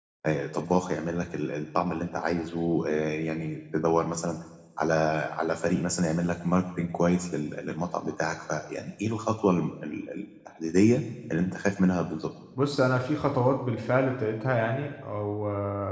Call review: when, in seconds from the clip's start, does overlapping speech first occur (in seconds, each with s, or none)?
none